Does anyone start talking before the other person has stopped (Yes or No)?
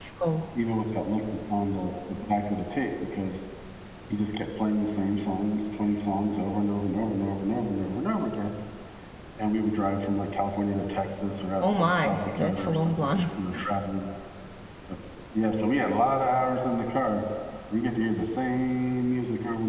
Yes